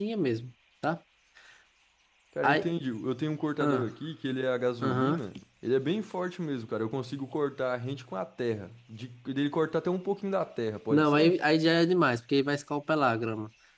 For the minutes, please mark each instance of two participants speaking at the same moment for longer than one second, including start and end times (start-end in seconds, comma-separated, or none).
none